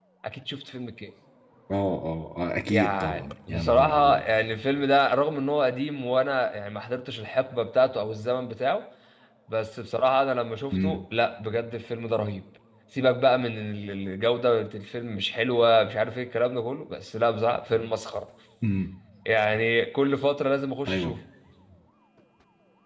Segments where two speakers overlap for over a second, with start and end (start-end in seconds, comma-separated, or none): 2.7-4.2